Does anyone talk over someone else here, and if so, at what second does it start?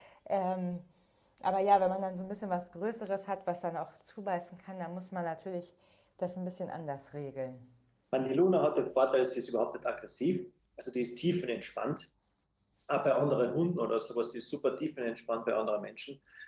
none

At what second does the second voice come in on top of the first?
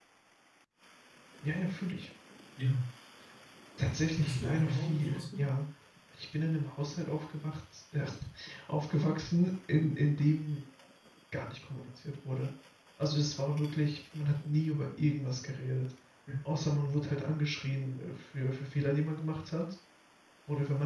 4.2 s

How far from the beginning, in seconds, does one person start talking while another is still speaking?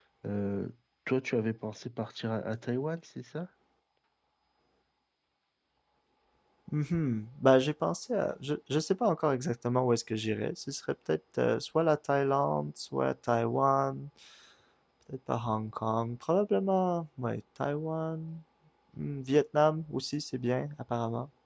none

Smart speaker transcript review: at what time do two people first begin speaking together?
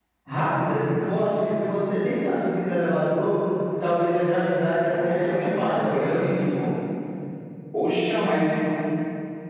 4.8 s

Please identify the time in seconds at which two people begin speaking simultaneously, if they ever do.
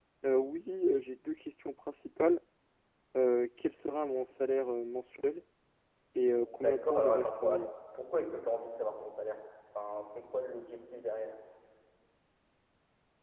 6.4 s

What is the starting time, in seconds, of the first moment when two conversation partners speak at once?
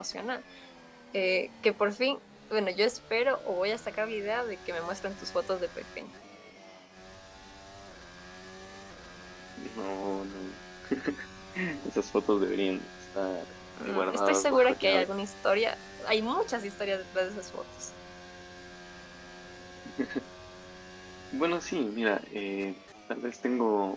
13.8 s

